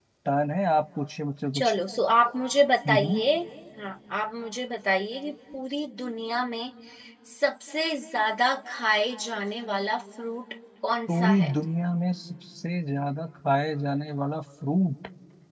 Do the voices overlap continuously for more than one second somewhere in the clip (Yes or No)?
No